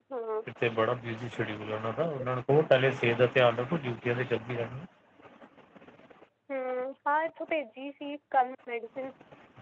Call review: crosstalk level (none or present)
none